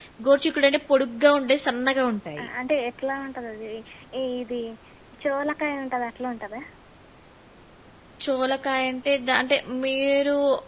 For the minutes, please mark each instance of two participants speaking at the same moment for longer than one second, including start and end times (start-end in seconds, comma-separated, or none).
none